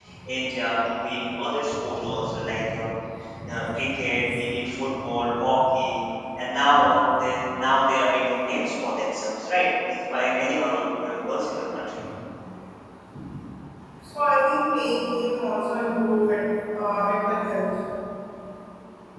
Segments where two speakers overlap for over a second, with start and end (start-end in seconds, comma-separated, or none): none